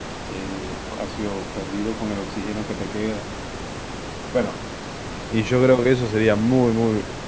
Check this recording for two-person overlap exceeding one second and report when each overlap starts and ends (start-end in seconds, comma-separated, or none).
none